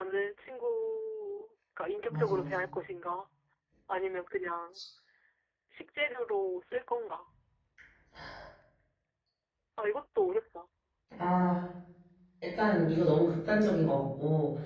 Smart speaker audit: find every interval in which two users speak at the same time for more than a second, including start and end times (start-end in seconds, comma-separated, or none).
none